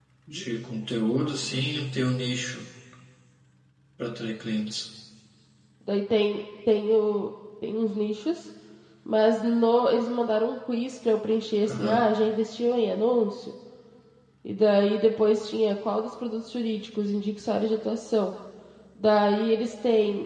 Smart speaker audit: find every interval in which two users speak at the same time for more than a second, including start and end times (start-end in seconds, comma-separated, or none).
none